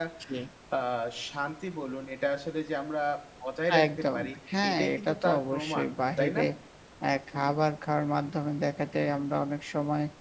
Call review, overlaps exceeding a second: present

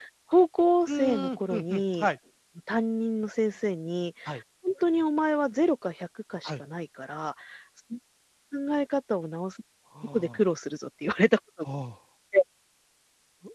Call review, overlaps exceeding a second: present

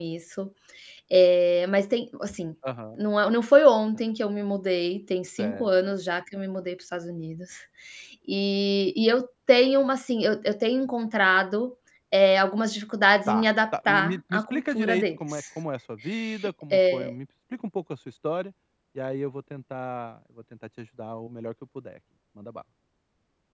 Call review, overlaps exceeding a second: present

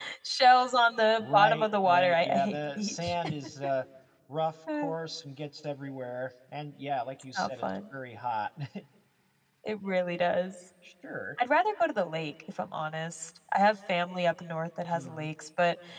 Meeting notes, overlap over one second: present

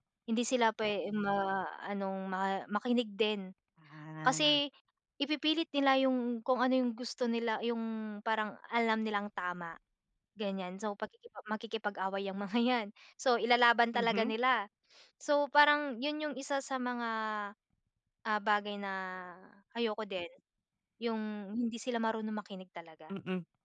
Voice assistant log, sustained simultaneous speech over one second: none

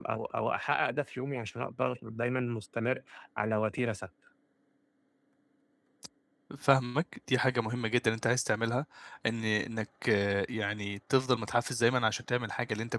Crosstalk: none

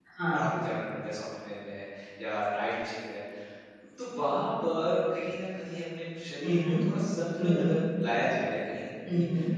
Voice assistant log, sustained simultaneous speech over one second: none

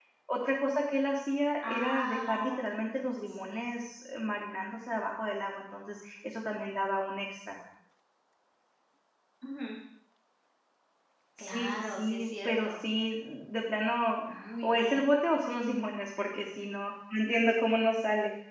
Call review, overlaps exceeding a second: present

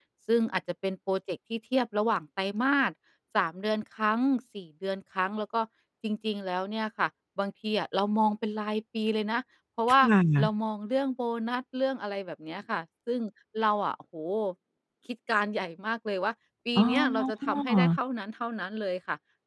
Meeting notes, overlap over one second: present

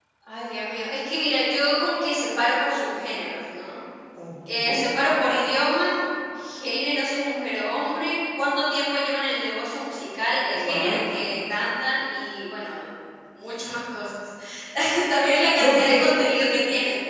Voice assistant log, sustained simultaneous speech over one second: none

